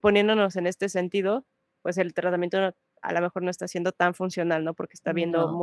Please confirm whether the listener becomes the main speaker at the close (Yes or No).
No